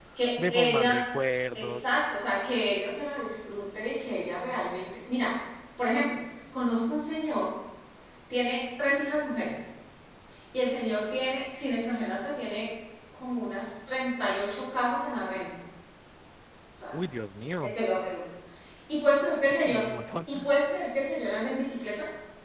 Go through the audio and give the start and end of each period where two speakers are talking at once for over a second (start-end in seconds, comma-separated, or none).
none